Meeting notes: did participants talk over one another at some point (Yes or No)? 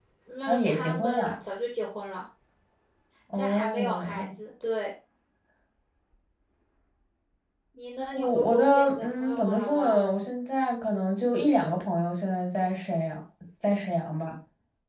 Yes